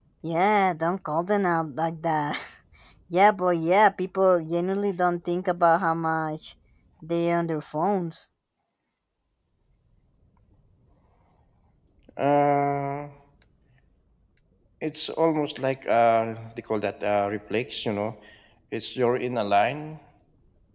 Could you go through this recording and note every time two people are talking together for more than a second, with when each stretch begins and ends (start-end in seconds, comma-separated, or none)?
none